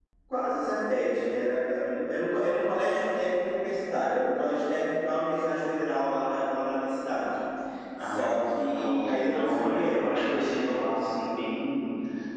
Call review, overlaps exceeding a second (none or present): present